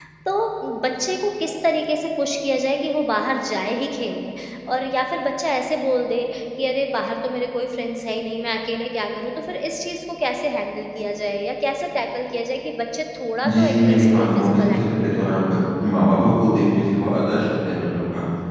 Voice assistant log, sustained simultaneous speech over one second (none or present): present